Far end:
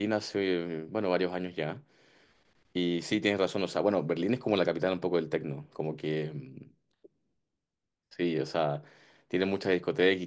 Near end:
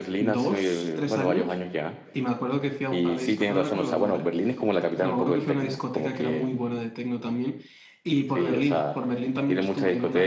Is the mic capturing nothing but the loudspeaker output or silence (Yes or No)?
No